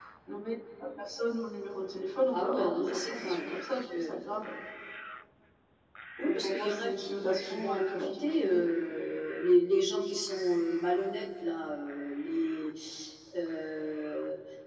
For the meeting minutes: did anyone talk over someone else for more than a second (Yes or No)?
Yes